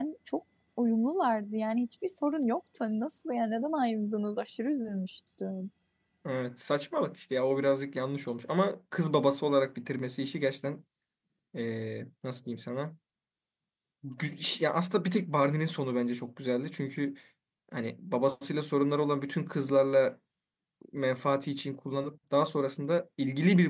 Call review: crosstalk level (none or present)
none